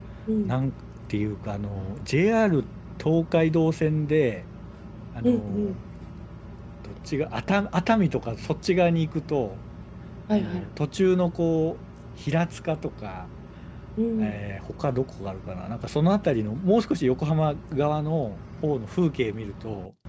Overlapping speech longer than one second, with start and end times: none

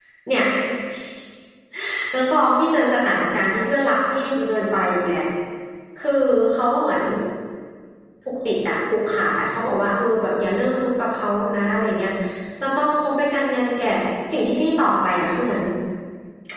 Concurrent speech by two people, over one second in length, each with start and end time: none

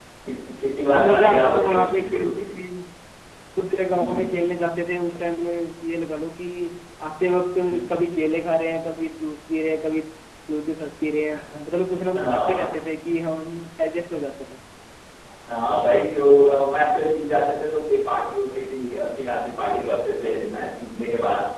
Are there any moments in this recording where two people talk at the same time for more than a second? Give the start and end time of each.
0.9-2.5

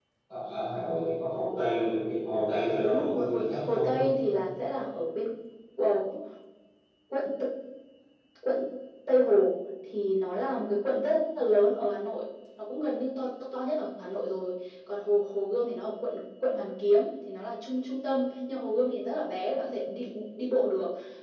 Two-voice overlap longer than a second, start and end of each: 2.8-4.1

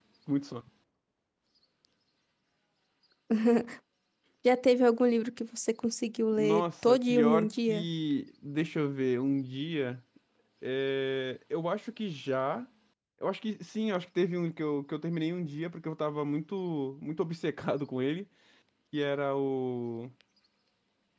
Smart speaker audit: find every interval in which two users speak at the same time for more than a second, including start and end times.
6.4-7.8

